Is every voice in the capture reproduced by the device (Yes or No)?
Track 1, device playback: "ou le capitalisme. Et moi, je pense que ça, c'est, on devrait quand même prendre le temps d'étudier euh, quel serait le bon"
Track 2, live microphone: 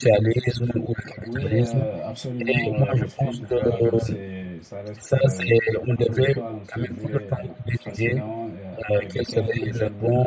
No